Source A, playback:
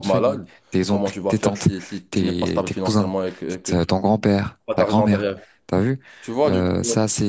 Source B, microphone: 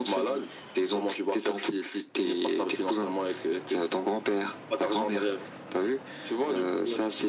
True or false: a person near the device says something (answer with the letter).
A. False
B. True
A